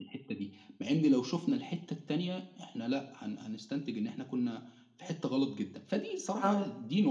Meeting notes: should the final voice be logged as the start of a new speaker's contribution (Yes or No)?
No